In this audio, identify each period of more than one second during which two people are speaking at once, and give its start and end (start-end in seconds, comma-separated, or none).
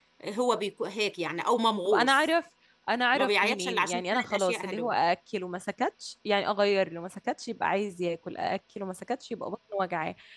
3.1-5.0